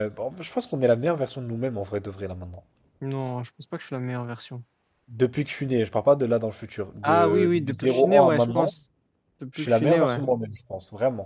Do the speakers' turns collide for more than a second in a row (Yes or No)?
Yes